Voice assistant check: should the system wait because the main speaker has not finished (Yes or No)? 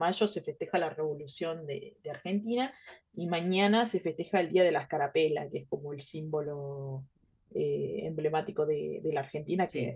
Yes